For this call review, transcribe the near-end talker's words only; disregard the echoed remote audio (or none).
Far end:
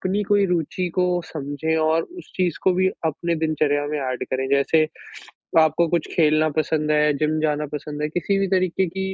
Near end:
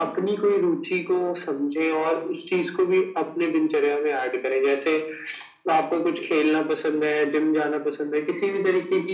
none